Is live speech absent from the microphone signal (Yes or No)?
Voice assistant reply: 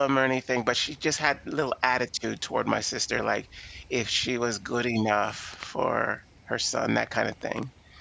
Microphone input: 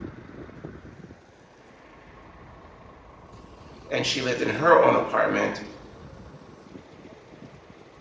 No